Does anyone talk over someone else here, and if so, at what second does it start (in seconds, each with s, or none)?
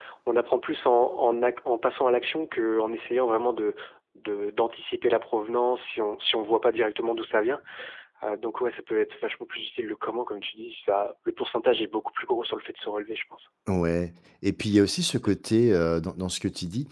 none